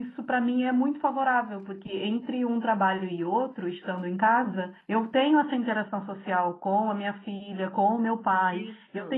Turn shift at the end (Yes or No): No